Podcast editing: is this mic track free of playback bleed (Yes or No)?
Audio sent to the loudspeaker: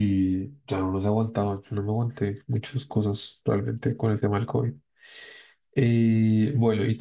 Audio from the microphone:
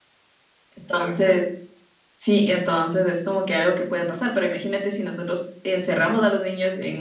Yes